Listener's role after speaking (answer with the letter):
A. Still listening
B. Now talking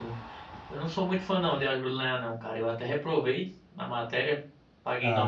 B